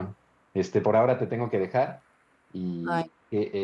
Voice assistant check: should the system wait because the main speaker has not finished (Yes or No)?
Yes